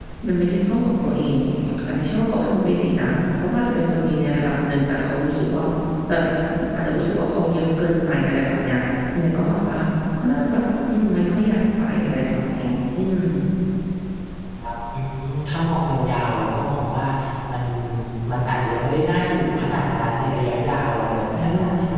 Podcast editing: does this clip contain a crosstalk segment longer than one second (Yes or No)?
No